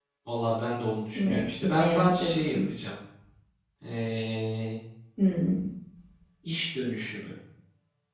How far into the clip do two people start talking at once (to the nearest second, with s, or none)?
1 s